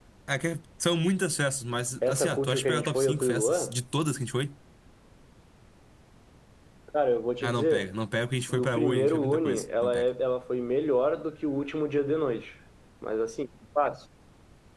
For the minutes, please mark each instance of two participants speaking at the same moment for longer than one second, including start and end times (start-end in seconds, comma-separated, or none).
2.1-3.7, 8.5-10.1